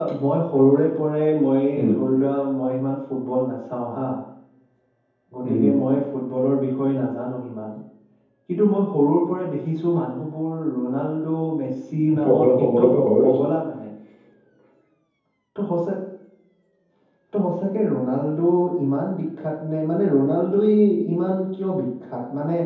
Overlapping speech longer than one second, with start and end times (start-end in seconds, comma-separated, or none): 12.2-13.4